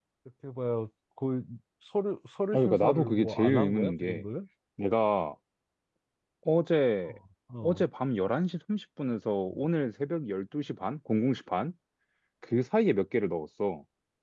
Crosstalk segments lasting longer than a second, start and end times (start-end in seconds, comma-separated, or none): 2.5-4.2